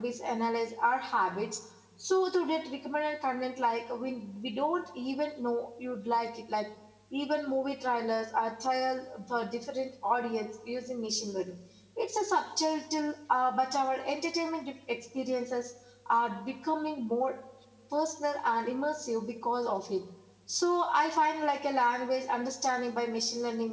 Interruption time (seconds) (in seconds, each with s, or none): none